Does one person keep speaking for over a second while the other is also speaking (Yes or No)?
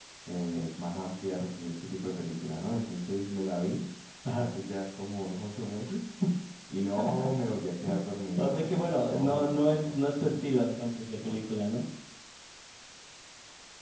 Yes